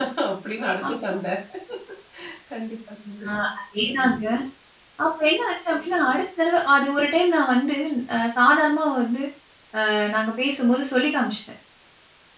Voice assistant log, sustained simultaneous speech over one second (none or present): none